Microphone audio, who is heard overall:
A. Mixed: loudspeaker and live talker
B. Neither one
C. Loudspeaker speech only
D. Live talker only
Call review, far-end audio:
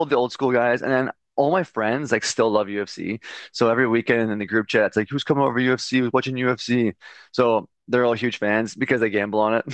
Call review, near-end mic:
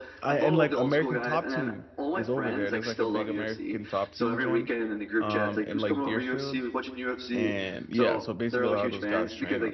A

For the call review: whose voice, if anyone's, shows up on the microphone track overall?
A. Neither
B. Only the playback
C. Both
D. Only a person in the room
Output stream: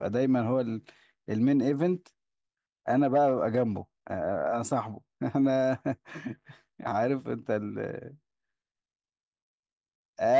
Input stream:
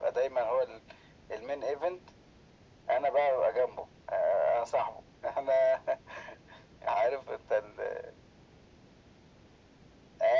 B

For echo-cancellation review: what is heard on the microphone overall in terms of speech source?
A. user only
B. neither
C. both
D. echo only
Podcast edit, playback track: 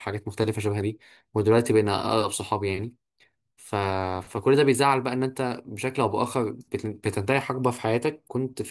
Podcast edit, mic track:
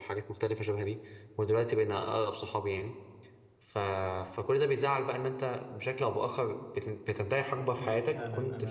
C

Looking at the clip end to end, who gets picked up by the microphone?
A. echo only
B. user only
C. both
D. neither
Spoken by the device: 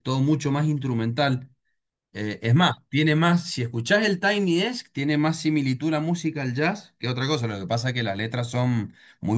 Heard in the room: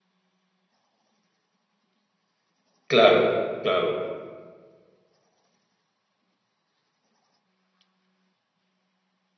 B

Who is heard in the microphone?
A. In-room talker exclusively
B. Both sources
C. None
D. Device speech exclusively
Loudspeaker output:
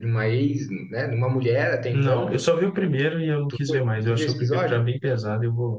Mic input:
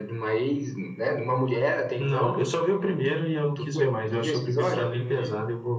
B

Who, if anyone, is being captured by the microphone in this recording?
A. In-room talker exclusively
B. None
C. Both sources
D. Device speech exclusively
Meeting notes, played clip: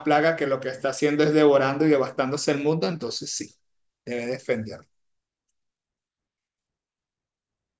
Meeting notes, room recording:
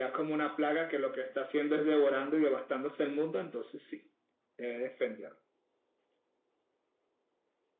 D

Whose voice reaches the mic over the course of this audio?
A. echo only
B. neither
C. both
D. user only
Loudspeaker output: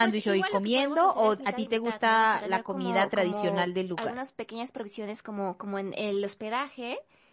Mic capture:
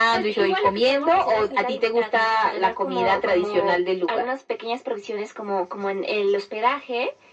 A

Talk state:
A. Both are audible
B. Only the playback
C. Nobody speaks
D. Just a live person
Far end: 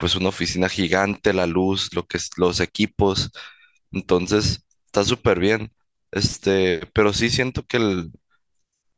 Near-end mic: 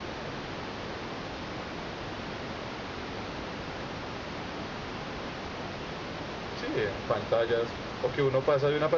D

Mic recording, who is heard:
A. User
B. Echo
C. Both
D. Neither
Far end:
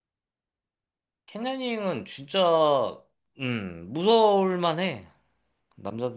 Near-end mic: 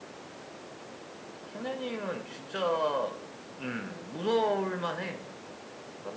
B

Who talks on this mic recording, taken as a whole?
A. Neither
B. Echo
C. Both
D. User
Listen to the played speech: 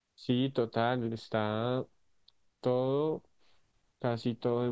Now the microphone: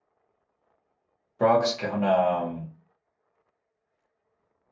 D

